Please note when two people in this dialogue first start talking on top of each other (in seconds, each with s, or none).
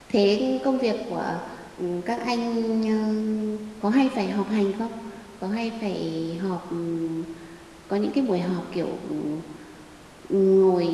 none